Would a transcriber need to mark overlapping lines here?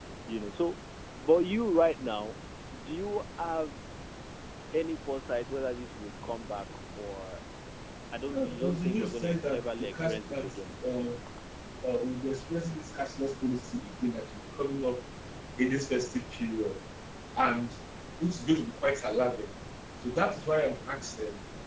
Yes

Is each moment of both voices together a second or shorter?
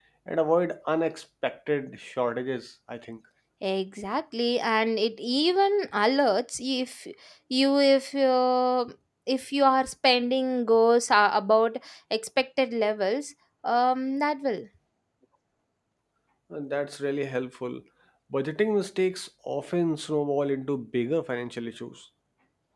Yes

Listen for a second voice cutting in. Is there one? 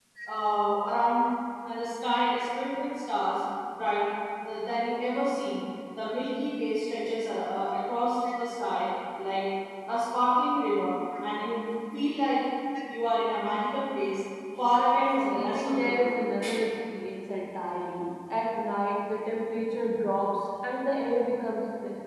Yes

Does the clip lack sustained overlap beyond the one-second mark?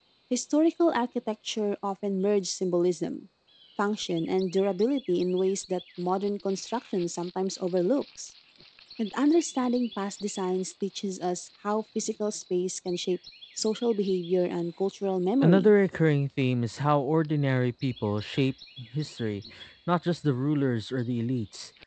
Yes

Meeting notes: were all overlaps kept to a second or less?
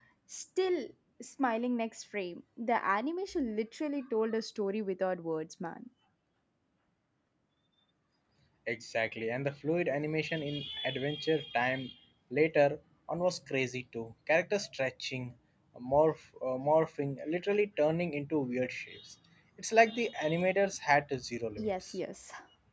Yes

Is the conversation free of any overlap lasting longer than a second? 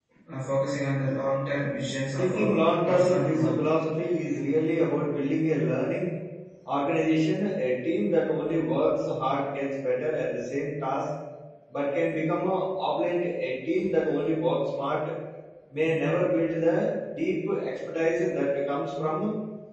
No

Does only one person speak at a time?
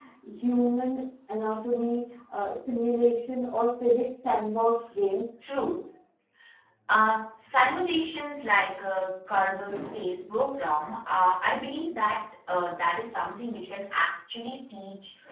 Yes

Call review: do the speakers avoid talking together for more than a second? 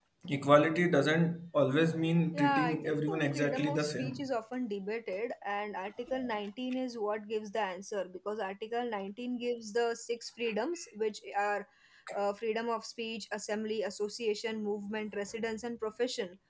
No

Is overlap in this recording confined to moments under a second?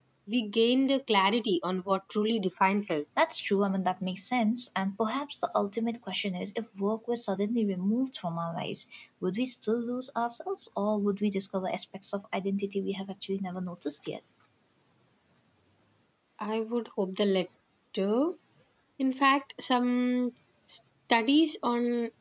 Yes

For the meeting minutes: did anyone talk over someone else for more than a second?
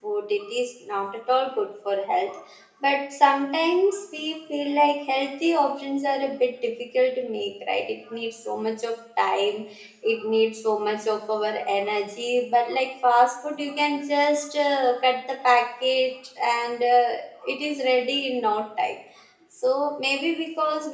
No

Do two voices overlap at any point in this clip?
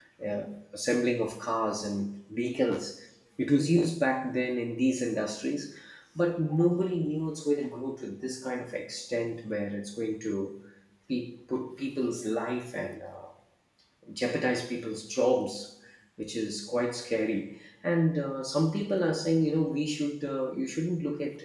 No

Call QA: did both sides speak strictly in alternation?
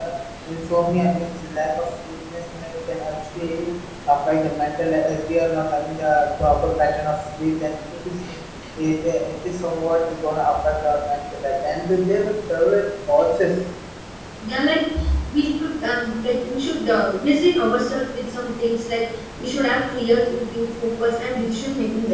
Yes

